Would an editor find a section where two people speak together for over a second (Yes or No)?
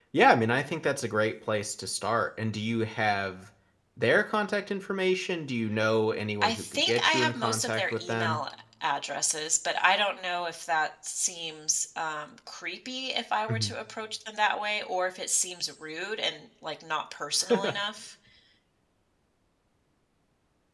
Yes